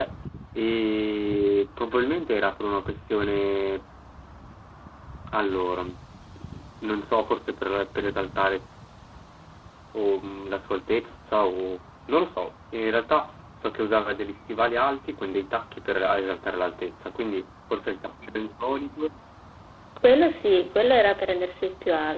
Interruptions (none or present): none